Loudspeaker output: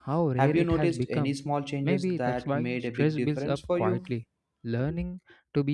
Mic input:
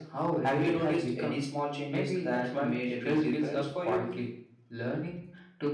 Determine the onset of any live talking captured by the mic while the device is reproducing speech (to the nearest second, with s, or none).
none